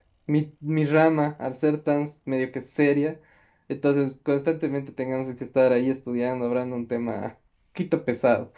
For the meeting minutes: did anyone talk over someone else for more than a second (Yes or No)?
No